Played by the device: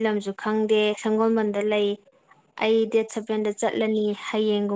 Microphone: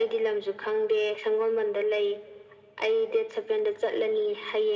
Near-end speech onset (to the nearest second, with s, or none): none